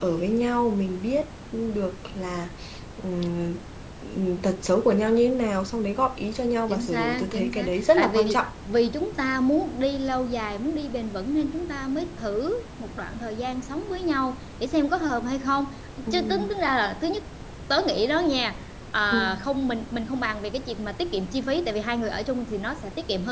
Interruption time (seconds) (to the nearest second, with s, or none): 7 s